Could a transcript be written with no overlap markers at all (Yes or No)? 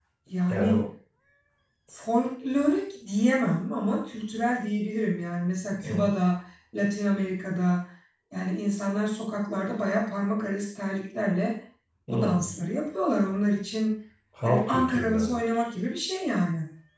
No